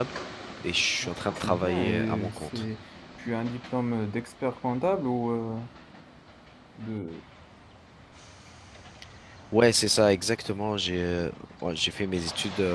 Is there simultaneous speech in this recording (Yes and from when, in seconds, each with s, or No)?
Yes, from 1.3 s